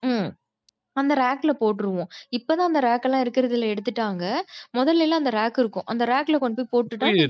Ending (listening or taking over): taking over